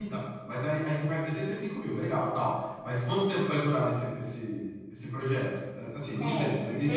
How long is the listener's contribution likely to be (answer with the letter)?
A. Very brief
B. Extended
B